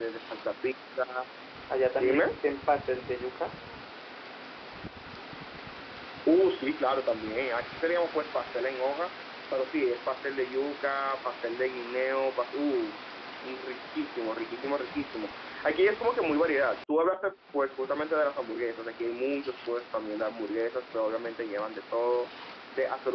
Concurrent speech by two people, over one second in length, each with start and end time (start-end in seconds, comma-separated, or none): none